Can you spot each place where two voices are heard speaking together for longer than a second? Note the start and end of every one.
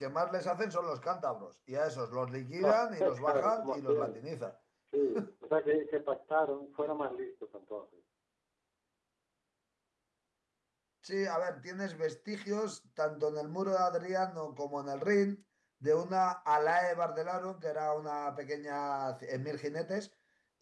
2.6-4.2

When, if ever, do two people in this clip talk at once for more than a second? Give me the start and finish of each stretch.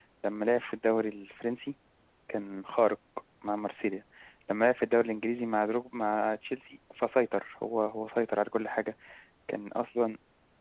none

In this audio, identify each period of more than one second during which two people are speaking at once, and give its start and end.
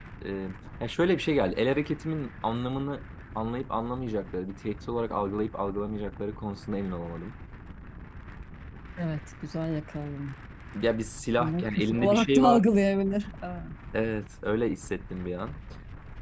11.4-12.7

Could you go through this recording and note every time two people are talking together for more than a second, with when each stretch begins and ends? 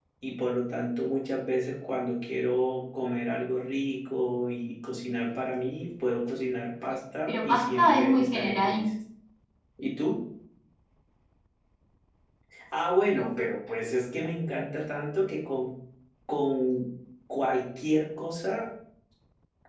7.3-8.9

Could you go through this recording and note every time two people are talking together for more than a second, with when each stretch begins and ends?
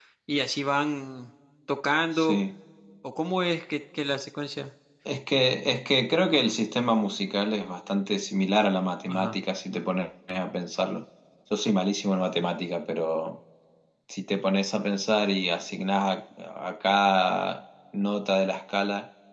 none

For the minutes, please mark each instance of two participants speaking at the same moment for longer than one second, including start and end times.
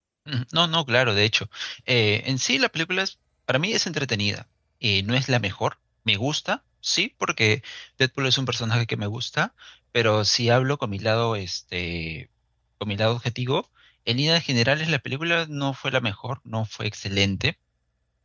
none

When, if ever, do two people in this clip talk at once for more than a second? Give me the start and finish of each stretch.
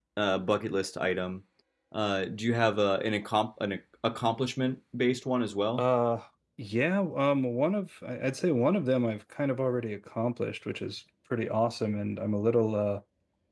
none

